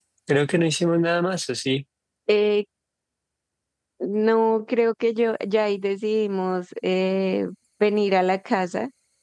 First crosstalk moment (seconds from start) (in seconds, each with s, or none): none